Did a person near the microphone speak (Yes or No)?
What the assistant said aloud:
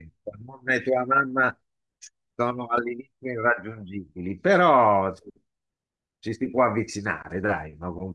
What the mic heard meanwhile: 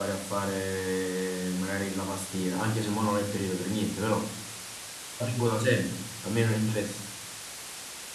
Yes